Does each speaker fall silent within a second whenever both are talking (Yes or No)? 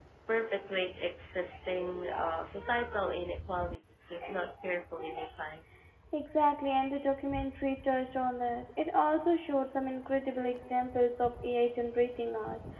Yes